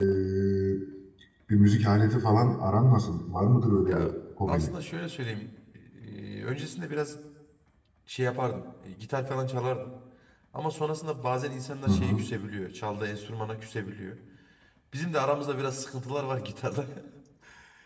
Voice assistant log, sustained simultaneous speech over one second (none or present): none